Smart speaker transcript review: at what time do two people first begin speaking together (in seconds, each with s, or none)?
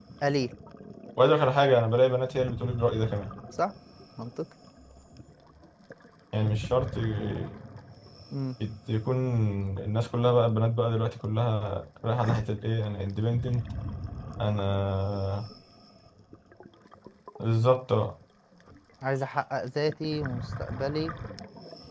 none